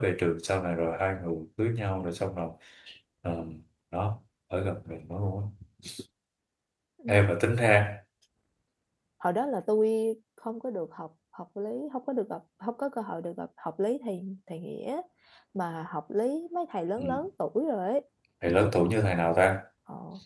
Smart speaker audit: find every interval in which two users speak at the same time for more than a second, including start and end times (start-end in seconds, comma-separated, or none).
none